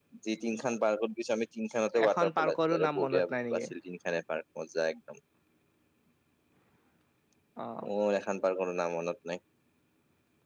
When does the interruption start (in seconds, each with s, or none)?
1.9 s